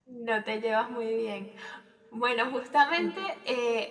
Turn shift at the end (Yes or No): No